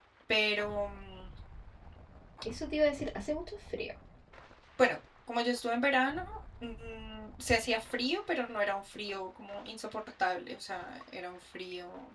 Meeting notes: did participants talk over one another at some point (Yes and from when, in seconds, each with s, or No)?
No